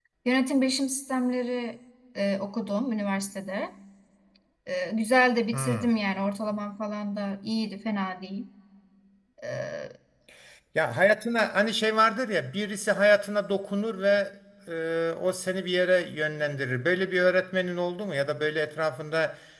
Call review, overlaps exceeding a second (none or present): none